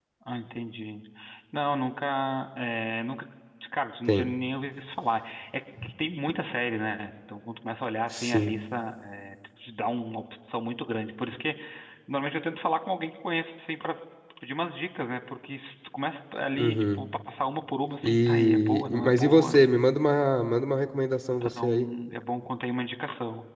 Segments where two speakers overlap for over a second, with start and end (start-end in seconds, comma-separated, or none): 18.0-19.5